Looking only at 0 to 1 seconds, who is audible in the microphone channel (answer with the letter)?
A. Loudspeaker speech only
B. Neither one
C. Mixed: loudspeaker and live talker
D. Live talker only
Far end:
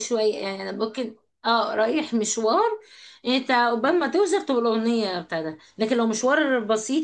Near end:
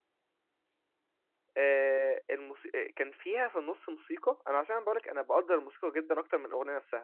B